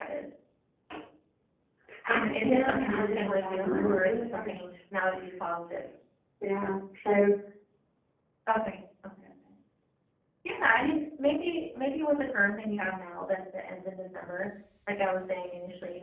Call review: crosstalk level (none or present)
present